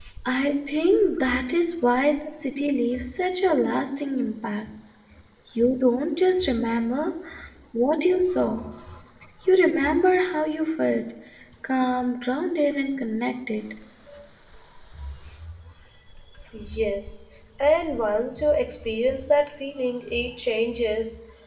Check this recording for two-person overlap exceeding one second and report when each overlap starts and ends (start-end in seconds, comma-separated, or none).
none